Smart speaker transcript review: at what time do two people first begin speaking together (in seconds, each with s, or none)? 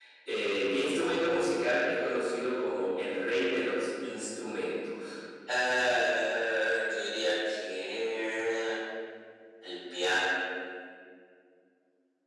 none